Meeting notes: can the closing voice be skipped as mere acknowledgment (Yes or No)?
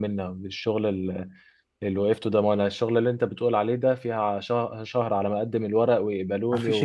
No